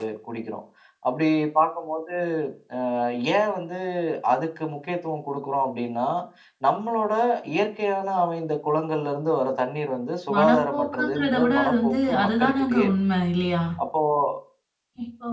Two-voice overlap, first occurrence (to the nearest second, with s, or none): 10 s